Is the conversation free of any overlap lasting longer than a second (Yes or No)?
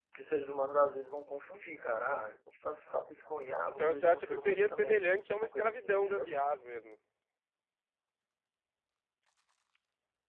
No